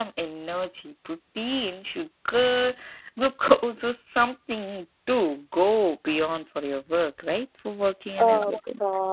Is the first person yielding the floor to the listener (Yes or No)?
Yes